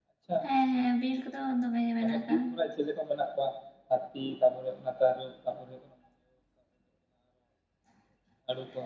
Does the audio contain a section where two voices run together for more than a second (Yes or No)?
No